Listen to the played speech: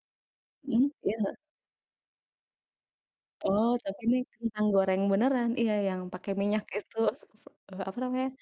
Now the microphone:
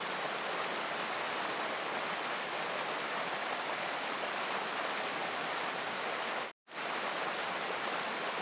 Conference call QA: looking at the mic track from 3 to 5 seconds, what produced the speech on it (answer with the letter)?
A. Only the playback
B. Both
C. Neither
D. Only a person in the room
C